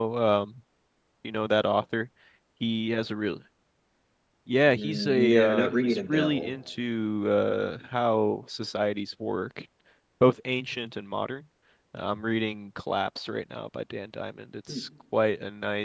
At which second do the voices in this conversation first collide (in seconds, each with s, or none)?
4.7 s